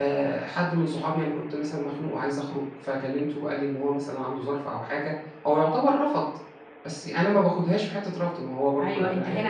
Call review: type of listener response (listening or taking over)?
taking over